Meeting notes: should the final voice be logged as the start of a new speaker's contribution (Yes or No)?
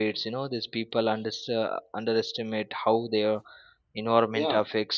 Yes